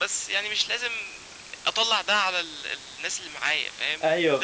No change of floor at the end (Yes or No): Yes